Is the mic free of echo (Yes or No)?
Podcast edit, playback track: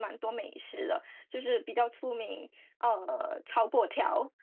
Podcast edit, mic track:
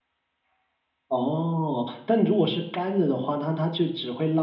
Yes